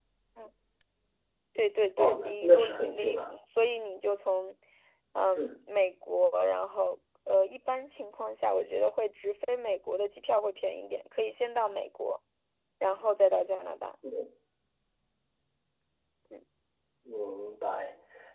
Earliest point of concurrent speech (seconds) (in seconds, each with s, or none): 2.0 s